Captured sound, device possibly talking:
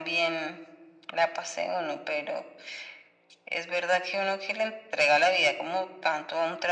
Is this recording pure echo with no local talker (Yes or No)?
Yes